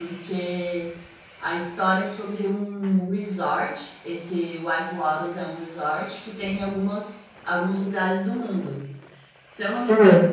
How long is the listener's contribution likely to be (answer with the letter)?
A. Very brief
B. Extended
A